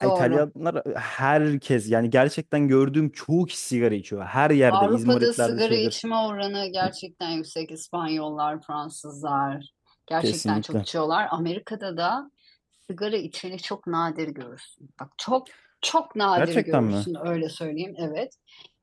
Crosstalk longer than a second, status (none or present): present